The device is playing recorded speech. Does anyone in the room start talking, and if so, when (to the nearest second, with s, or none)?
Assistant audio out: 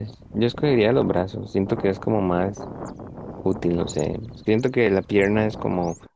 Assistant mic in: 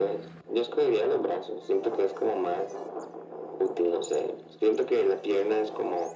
none